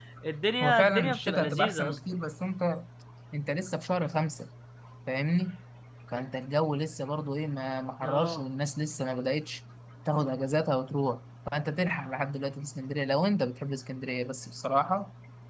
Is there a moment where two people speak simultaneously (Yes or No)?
Yes